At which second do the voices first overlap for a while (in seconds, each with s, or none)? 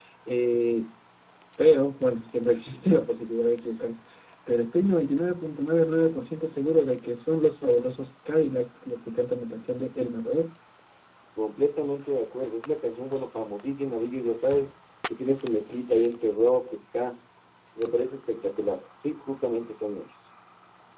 none